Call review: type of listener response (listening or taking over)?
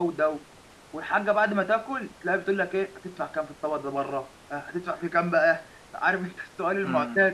taking over